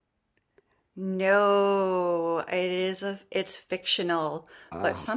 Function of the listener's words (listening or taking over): listening